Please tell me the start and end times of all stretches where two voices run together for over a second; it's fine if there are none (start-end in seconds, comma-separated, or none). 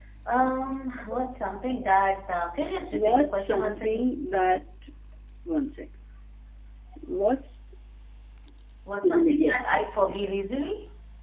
2.9-4.2, 9.0-10.4